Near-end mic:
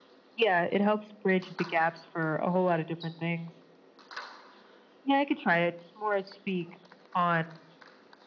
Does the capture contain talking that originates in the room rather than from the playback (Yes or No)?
No